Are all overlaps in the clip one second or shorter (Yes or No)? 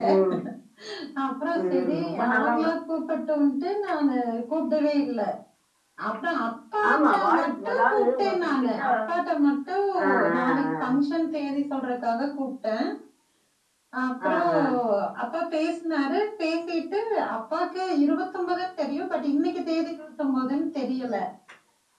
No